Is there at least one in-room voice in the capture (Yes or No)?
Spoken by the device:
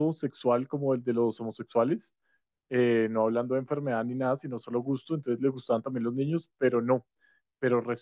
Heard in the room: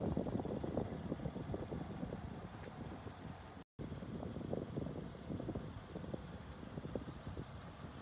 No